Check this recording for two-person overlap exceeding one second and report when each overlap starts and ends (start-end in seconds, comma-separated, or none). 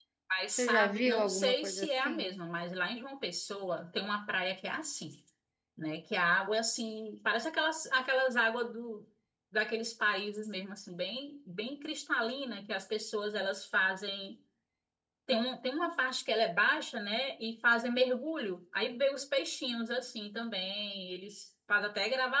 0.6-2.4